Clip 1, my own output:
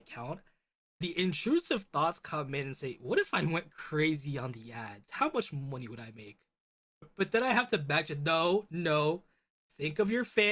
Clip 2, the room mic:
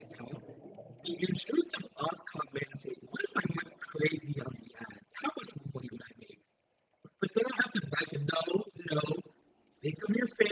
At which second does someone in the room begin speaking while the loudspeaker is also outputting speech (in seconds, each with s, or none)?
none